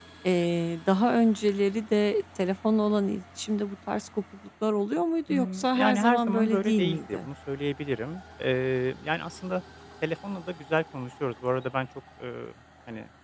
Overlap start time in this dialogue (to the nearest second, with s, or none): 5 s